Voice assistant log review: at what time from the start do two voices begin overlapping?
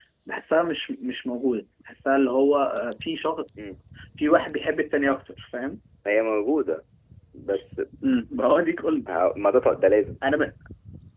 none

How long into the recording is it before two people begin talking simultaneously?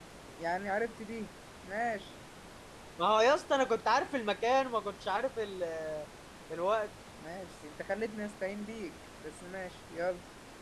none

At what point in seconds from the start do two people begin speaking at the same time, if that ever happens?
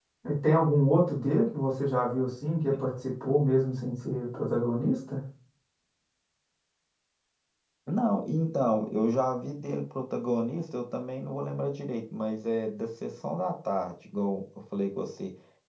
none

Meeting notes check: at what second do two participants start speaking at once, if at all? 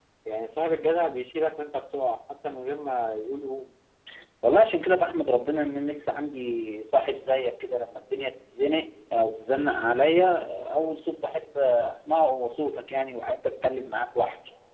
none

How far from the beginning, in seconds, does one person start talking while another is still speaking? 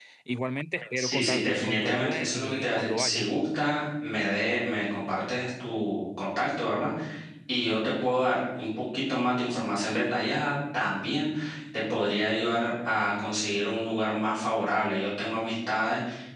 1 s

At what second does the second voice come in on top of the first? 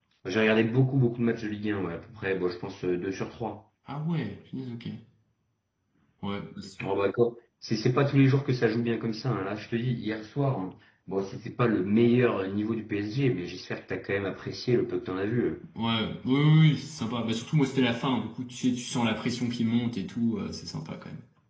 none

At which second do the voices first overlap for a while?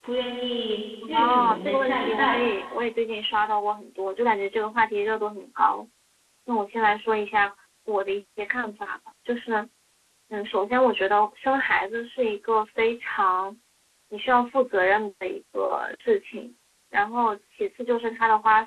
1 s

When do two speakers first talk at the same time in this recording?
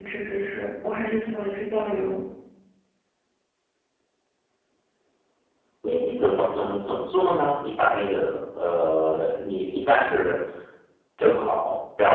none

